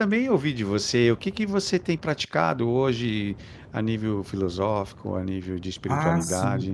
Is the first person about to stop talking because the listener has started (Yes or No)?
Yes